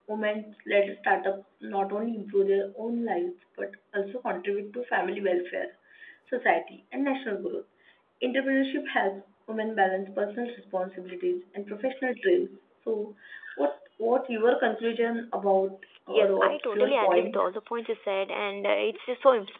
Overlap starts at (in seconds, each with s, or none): 16.1 s